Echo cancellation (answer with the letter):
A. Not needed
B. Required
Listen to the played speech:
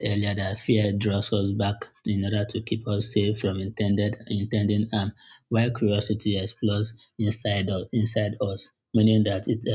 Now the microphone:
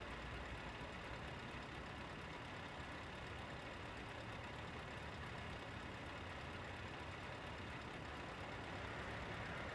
A